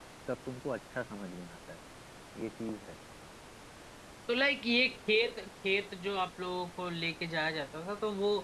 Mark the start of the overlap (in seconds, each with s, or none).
none